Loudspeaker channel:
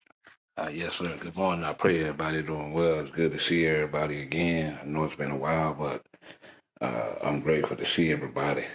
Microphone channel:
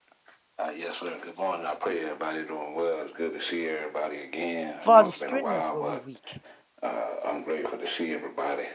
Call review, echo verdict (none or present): present